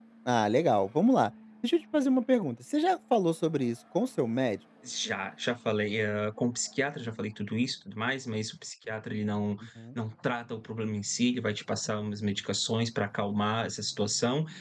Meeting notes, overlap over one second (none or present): none